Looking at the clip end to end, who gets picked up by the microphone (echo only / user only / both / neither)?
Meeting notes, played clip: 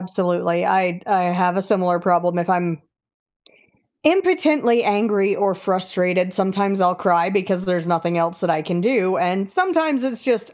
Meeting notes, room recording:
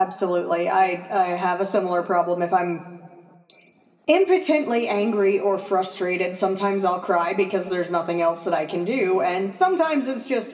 echo only